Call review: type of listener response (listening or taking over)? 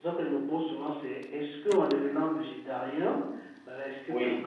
listening